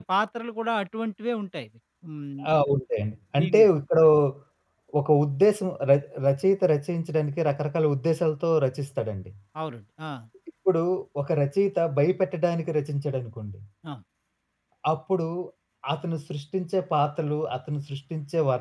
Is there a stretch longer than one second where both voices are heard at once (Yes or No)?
No